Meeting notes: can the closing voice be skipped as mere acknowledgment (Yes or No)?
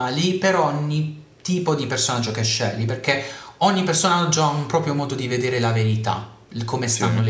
Yes